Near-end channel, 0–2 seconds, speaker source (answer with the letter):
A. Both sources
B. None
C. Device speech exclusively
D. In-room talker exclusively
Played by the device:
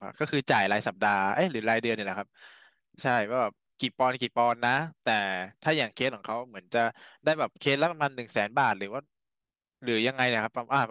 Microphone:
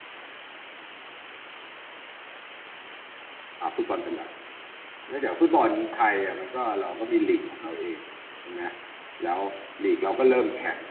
B